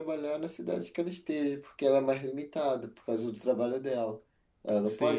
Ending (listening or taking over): taking over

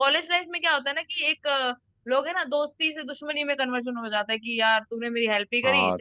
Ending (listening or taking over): taking over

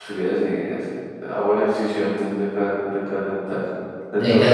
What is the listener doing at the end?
taking over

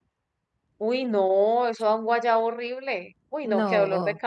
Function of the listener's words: listening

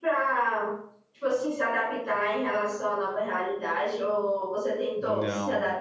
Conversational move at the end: taking over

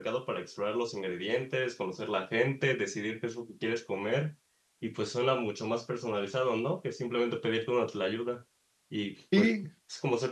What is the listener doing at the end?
listening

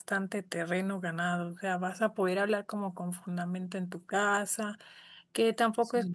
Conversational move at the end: listening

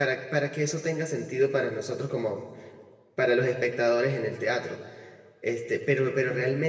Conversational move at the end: listening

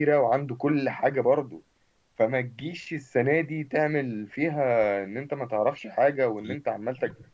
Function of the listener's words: listening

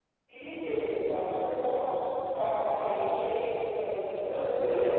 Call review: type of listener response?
taking over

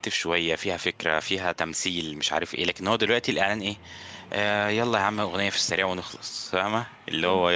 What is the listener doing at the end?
taking over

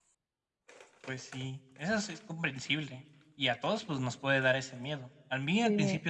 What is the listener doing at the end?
listening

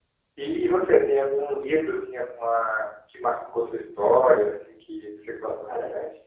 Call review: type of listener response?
taking over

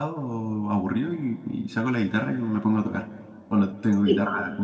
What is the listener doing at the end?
listening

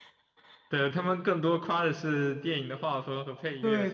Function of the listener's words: taking over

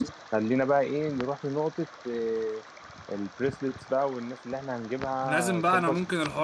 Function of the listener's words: taking over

